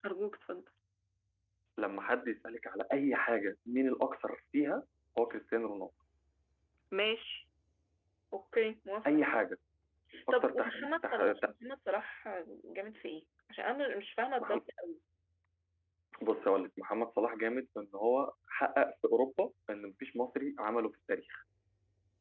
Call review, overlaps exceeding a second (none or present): present